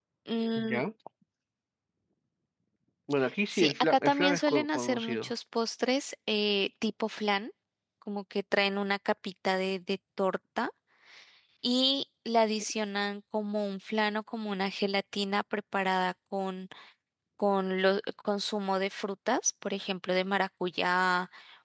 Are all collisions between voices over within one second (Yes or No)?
No